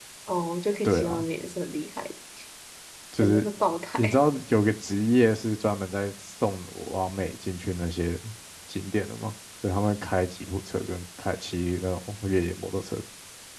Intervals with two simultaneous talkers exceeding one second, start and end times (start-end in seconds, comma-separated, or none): none